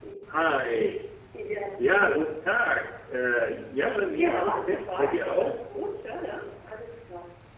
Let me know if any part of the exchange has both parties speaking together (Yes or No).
Yes